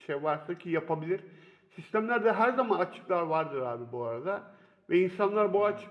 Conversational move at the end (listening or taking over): listening